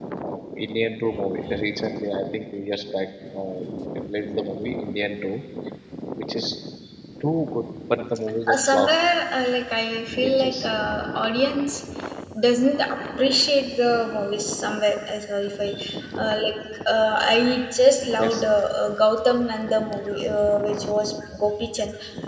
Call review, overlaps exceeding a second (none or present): none